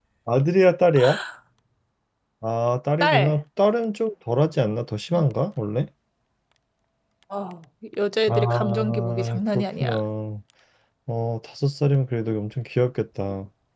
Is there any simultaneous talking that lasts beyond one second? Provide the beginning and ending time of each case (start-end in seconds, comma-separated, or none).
8.3-9.9